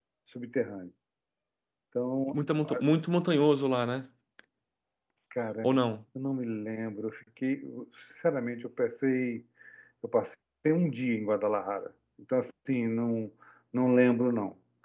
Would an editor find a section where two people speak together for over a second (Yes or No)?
No